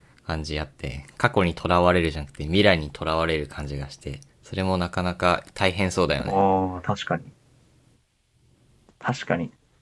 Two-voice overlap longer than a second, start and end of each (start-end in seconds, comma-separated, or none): none